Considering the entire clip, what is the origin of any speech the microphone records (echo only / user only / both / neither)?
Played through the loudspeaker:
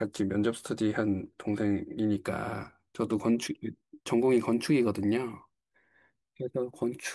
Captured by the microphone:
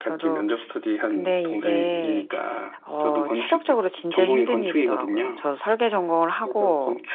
both